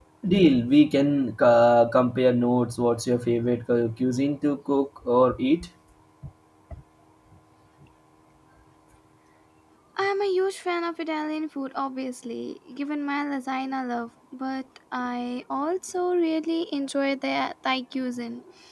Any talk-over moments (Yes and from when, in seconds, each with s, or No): No